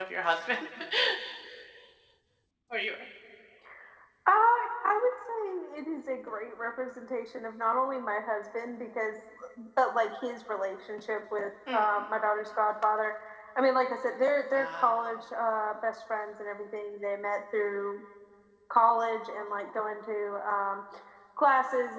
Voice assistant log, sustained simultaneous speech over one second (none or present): none